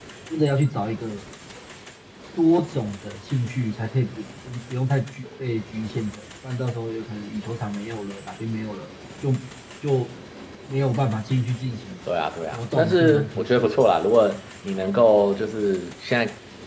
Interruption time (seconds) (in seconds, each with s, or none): 12.5 s